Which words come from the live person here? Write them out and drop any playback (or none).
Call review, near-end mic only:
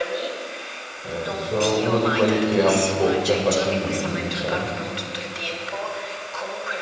eh, sono uno di quelli che abbocca facilmente, diciamo.